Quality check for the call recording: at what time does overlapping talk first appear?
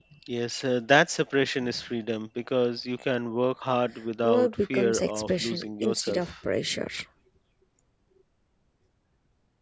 4.2 s

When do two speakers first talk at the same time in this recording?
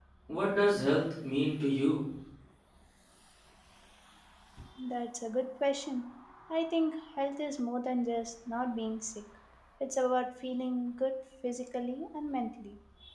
none

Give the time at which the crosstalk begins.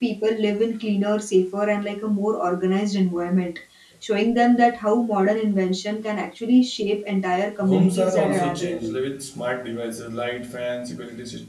7.6 s

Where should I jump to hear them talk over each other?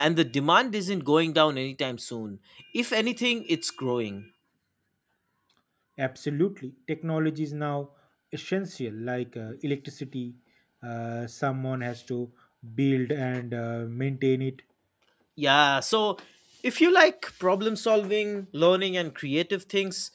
none

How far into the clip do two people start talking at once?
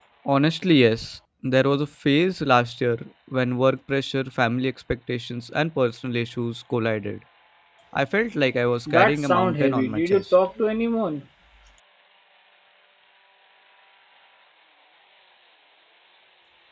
8.9 s

